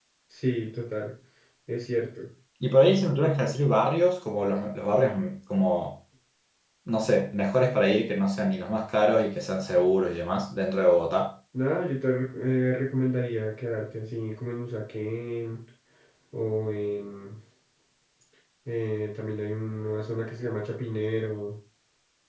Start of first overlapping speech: none

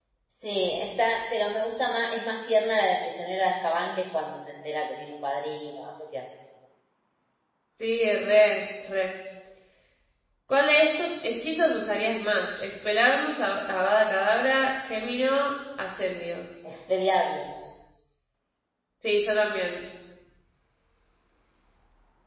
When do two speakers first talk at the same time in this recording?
none

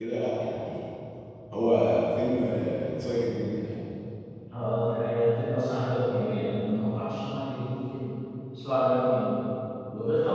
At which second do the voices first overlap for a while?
none

